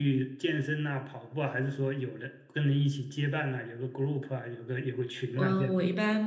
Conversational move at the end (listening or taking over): taking over